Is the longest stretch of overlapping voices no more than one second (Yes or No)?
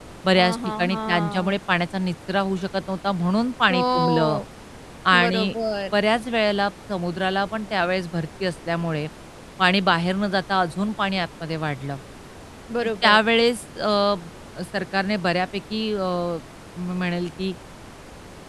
No